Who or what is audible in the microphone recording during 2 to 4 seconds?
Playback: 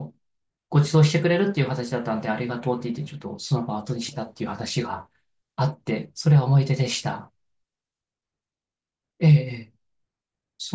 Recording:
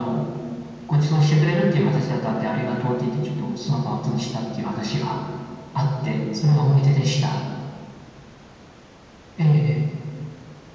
echo only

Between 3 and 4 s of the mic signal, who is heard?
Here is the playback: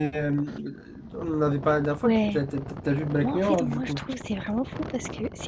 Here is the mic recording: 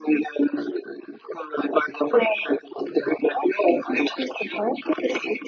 echo only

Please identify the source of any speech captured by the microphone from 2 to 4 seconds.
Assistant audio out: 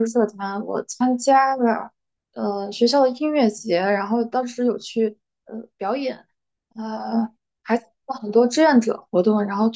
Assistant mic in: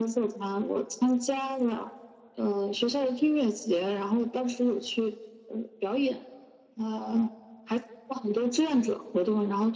echo only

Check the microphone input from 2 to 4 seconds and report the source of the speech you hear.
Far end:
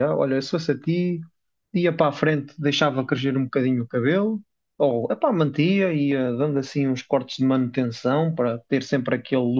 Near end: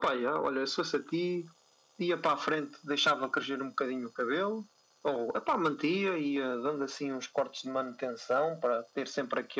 echo only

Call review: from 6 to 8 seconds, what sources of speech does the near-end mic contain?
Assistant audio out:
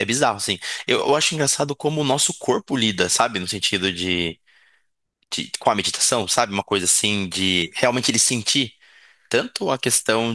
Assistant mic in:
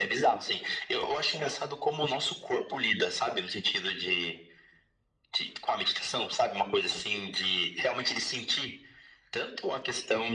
echo only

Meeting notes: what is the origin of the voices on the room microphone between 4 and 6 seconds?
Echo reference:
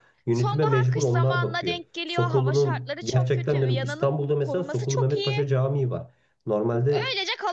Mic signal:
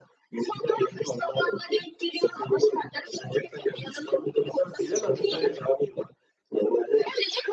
both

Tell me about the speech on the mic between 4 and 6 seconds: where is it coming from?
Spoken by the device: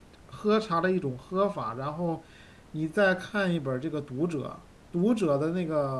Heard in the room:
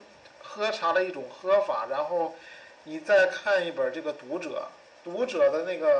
echo only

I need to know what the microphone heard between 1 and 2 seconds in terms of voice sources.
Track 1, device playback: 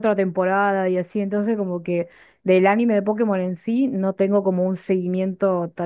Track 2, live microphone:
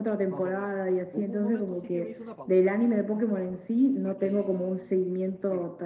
both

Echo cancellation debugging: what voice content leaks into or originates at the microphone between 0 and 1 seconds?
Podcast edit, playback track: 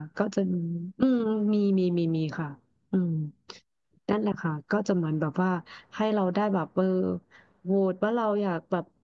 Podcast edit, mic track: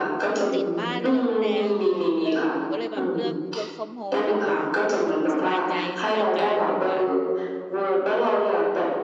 both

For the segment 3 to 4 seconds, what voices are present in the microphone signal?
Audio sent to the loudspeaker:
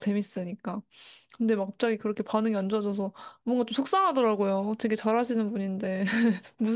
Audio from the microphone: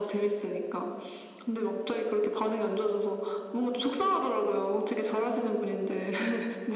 echo only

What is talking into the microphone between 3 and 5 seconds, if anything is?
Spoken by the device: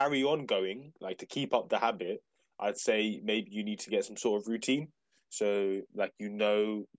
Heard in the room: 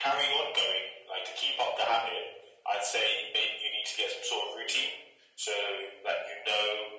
echo only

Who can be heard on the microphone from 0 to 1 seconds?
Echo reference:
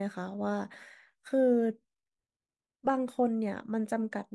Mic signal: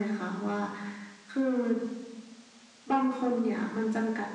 echo only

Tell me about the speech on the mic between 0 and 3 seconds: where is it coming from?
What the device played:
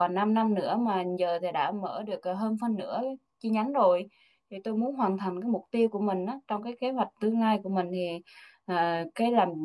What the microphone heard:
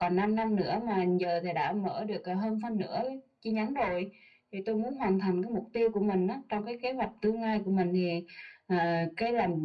echo only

